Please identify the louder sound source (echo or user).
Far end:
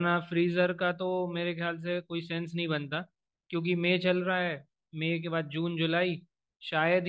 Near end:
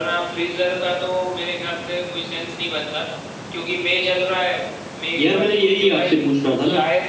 user